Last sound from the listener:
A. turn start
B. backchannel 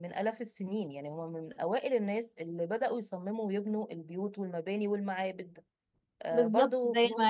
A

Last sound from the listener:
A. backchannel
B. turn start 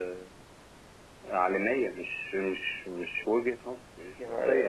B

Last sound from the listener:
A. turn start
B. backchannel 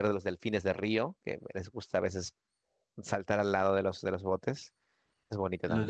A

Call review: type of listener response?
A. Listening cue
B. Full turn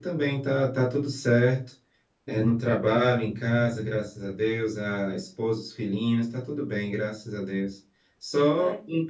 A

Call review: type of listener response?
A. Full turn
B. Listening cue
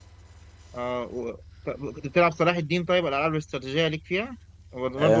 A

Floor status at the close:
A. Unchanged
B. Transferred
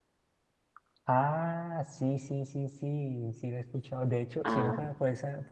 A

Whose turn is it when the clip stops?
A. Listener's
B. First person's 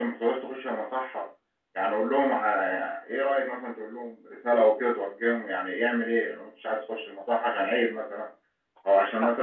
B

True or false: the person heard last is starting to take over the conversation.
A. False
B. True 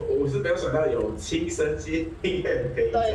B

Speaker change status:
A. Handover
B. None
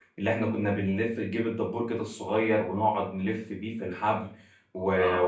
B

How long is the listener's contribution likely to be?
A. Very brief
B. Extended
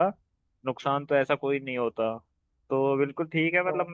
A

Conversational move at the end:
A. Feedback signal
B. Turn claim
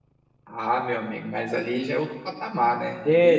B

